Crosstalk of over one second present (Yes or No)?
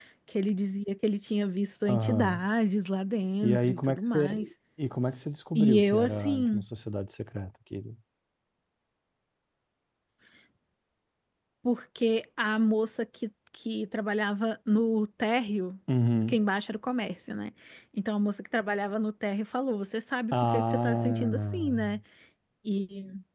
Yes